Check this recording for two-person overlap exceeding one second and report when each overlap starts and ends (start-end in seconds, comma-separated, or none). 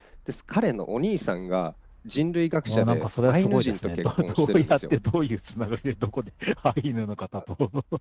2.6-4.8